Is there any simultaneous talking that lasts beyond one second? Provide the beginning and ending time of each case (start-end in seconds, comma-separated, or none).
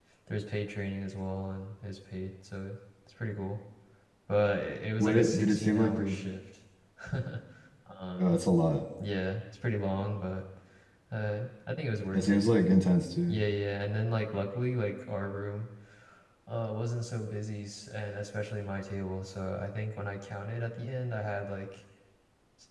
5.0-6.2